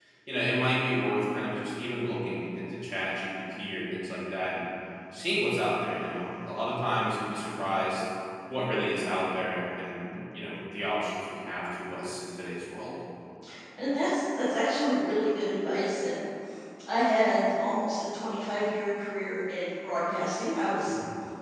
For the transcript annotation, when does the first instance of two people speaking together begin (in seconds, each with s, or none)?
none